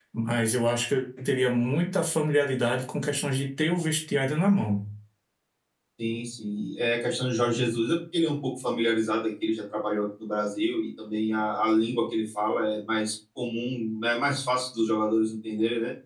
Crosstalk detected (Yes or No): No